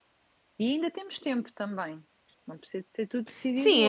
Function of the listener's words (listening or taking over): taking over